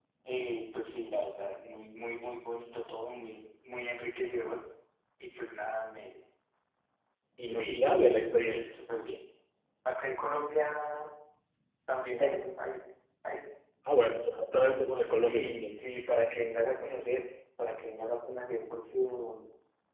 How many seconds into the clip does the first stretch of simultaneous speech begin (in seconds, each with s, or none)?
7.4 s